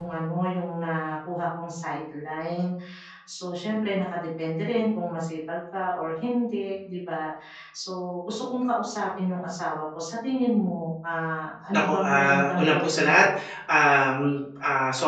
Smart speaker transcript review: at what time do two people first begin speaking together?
11.7 s

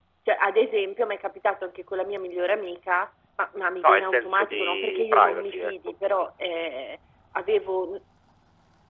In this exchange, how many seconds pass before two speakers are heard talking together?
3.8 s

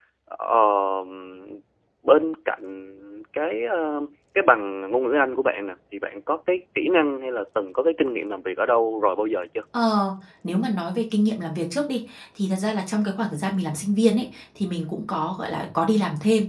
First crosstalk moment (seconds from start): none

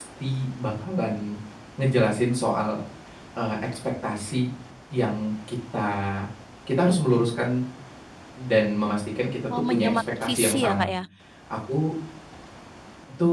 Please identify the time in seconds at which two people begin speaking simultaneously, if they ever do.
9.5 s

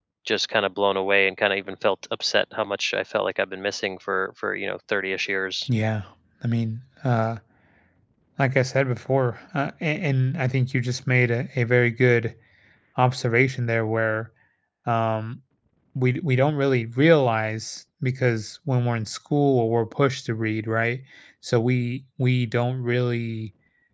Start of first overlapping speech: none

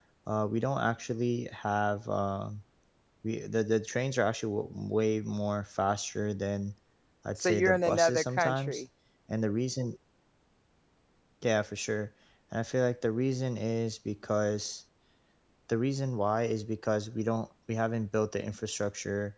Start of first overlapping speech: 7.3 s

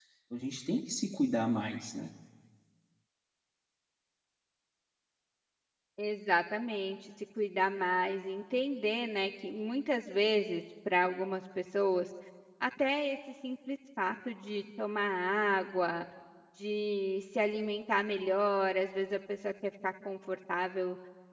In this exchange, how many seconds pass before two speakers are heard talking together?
none

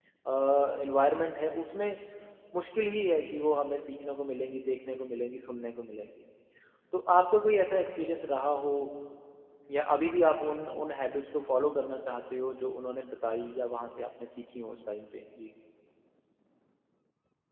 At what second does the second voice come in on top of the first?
none

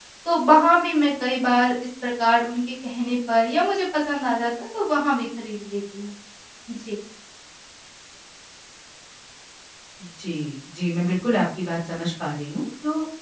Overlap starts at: none

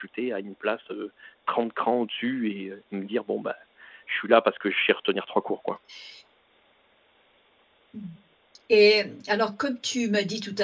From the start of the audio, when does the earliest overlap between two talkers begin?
none

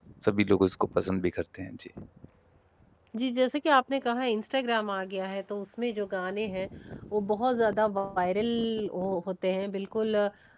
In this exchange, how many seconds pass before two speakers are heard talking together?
none

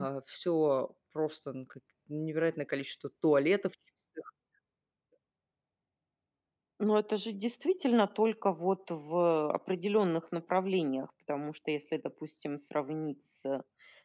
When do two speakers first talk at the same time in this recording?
none

